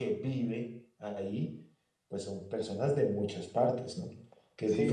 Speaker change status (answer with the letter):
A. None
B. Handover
B